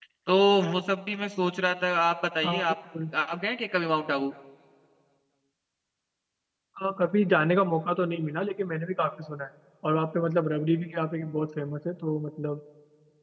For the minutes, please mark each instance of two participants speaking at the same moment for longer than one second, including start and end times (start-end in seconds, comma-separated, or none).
none